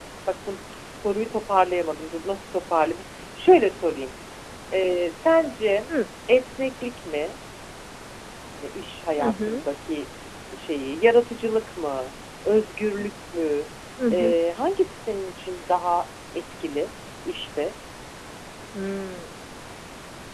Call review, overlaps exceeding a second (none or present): none